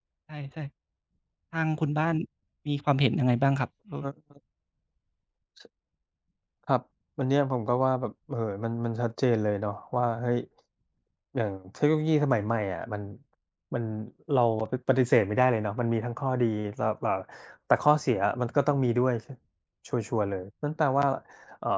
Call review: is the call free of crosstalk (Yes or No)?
Yes